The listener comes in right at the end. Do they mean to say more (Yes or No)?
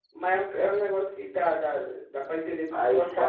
Yes